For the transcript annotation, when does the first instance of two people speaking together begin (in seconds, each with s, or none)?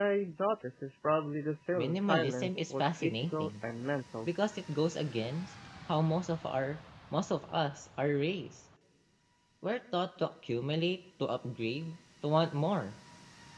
1.7 s